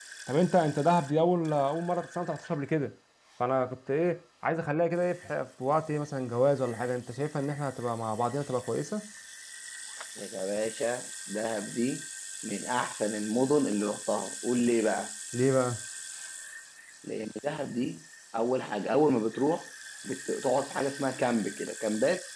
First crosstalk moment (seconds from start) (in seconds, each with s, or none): none